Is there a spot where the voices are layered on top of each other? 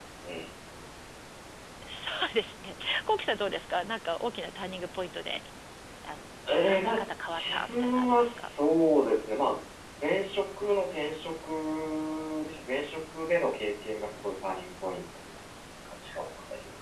Yes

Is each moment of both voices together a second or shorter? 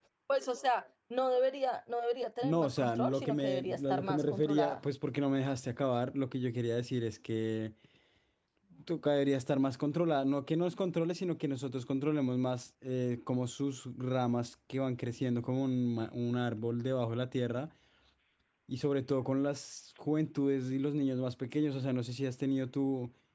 No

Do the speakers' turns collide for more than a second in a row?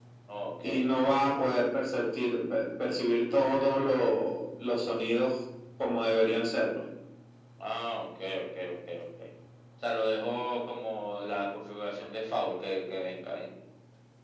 No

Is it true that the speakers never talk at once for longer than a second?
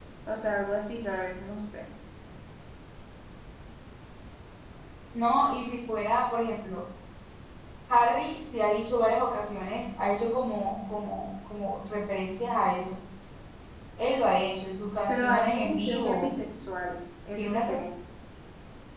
No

